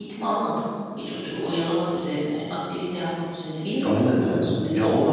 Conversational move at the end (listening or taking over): taking over